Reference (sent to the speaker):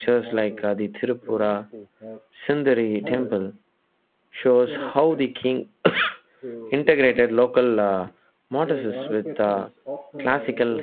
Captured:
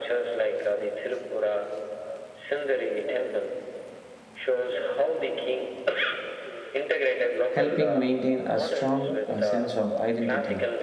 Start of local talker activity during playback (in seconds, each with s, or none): 7.5 s